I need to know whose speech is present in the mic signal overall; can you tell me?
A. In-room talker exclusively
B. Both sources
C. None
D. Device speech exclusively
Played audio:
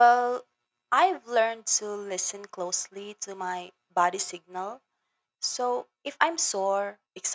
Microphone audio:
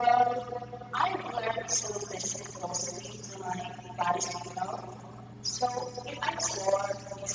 D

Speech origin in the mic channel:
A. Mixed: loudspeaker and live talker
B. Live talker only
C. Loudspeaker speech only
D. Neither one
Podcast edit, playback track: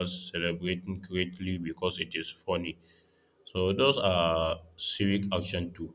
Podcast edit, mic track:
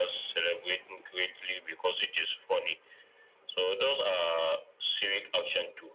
C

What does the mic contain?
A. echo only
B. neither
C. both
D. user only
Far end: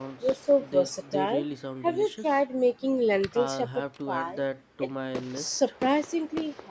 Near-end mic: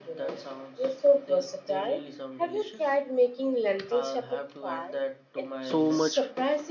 C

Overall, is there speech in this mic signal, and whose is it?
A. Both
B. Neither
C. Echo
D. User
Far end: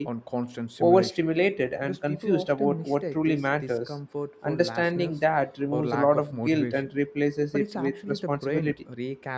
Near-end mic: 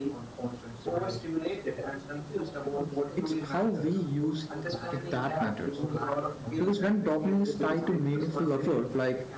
A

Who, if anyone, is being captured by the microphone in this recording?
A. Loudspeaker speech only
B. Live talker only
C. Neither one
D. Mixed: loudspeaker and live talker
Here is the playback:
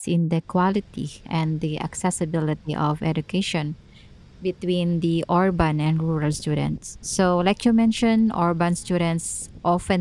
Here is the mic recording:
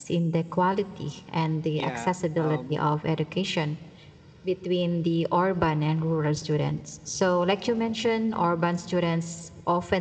D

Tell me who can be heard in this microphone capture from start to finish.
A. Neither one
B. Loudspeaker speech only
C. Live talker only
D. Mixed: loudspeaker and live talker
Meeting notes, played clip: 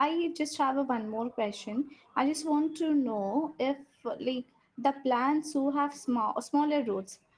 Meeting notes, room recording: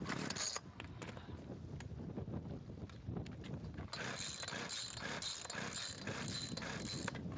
A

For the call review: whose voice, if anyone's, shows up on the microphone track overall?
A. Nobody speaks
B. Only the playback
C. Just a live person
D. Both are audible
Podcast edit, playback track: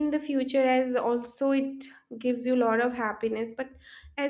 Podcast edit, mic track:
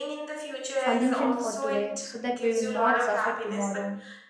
D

